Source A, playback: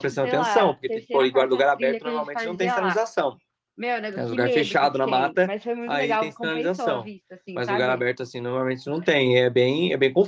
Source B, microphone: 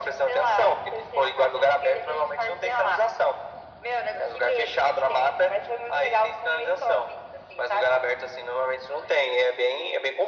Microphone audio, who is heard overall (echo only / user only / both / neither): echo only